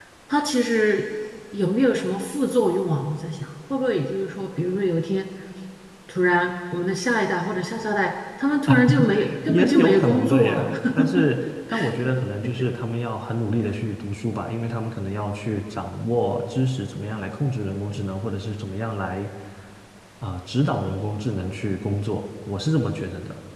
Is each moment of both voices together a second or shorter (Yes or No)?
No